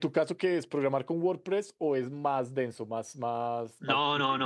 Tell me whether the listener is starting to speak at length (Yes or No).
Yes